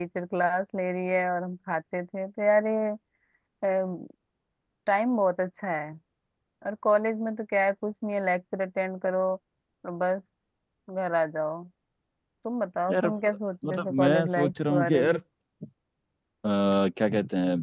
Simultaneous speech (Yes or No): Yes